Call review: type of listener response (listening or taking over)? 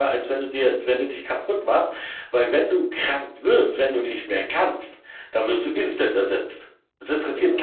listening